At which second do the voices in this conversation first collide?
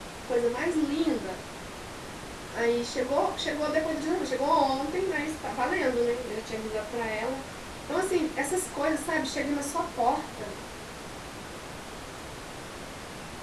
none

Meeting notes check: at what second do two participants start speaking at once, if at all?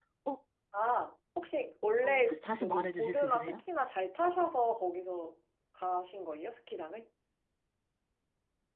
2.0 s

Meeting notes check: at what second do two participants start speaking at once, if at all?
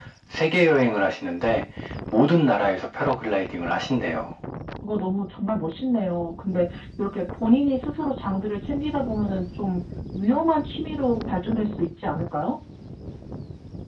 none

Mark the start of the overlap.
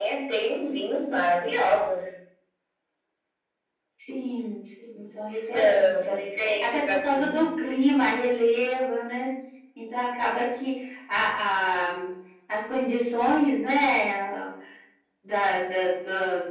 5.3 s

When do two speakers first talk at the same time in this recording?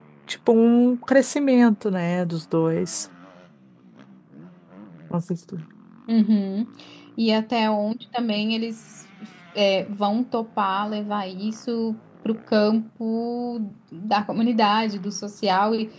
none

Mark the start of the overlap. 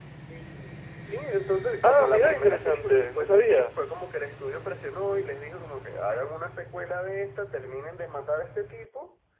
1.8 s

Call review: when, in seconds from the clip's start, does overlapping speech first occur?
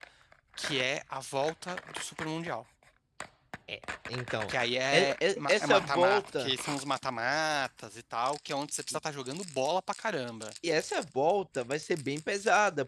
4.9 s

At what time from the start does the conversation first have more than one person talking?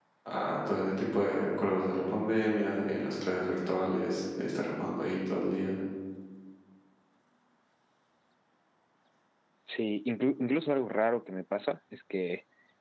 none

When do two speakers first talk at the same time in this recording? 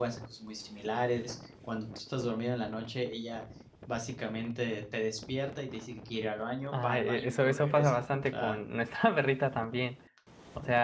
6.7 s

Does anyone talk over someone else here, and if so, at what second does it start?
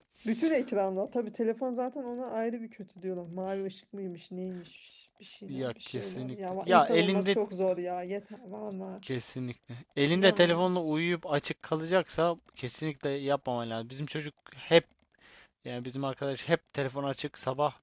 5.5 s

